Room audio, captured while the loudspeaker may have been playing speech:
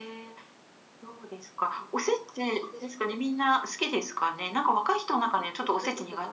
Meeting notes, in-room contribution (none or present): present